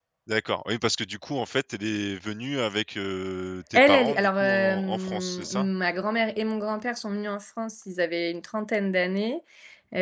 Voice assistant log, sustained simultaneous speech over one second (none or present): present